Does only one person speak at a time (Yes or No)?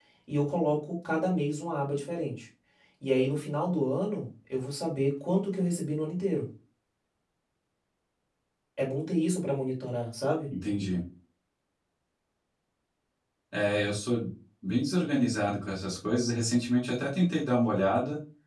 Yes